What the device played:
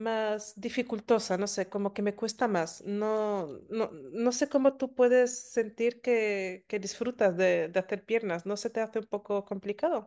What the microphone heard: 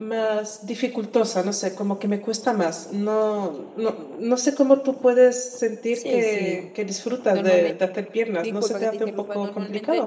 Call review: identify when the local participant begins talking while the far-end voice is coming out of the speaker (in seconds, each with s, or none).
5.9 s